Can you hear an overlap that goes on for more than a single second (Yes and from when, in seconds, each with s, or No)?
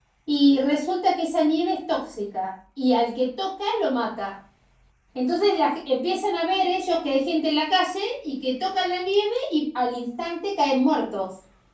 No